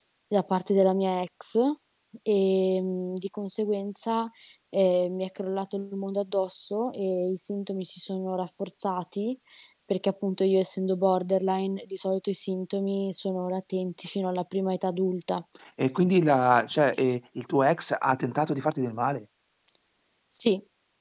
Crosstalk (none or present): none